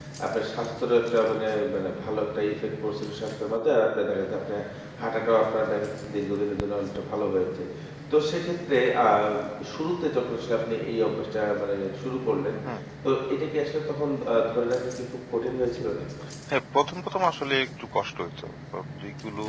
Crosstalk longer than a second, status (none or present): none